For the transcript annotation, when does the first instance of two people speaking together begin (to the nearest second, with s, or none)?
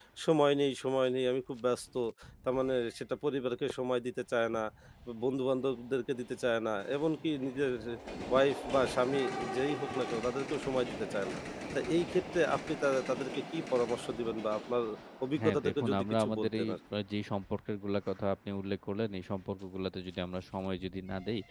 15 s